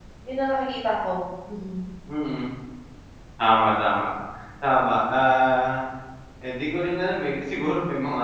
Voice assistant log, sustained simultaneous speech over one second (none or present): none